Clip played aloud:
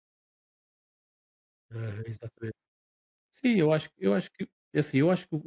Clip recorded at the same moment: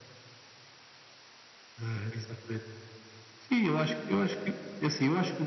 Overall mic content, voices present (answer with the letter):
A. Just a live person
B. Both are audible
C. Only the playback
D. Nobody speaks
C